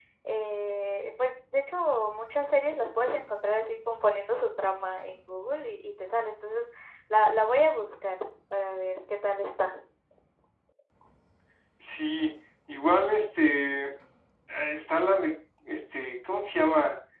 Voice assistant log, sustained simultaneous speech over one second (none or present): none